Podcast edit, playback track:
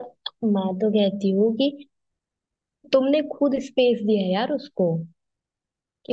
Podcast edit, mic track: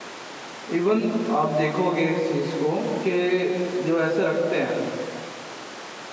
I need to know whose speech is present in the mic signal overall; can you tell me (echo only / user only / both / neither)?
user only